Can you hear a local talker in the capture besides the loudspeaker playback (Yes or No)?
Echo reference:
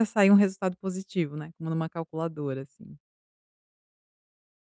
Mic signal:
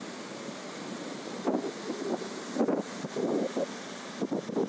No